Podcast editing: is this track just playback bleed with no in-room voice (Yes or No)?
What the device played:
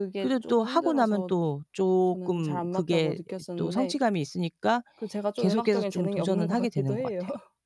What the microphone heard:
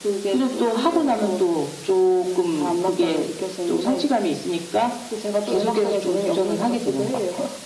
Yes